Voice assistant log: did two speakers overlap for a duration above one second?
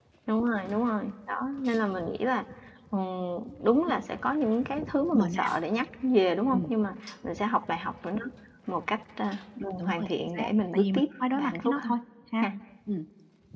Yes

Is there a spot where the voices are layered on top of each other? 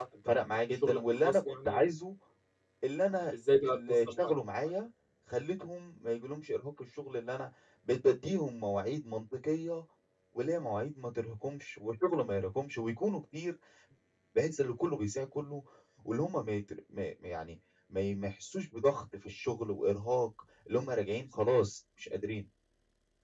Yes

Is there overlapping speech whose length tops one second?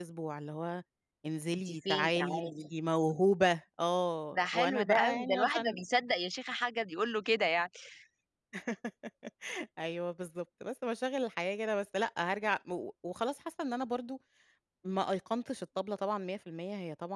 Yes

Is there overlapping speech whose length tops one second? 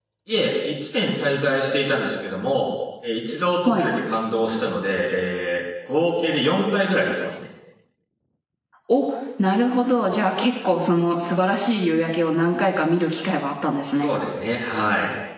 No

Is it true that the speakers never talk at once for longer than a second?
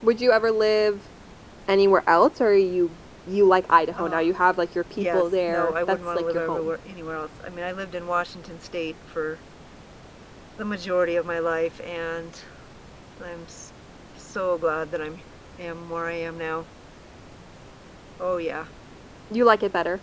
No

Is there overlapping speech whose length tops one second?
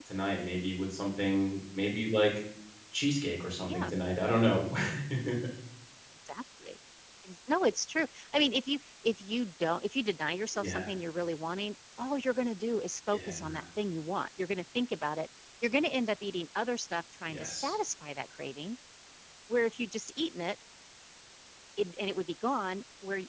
No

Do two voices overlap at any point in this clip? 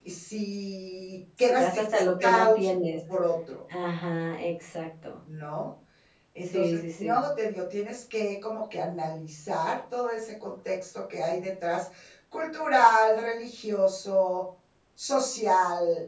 Yes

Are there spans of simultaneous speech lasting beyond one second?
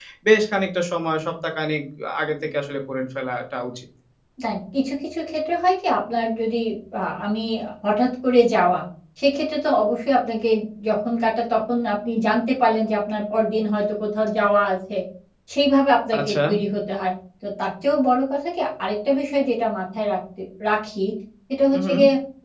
No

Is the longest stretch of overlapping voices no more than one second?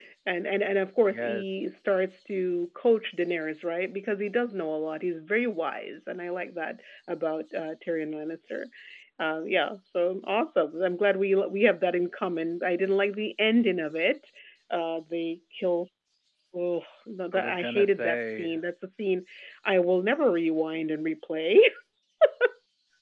No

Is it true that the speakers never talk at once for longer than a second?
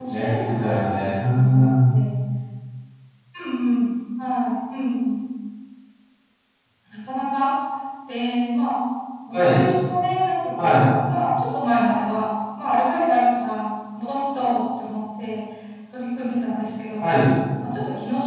No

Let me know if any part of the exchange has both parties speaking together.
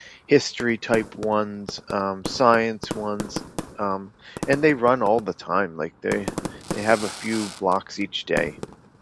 No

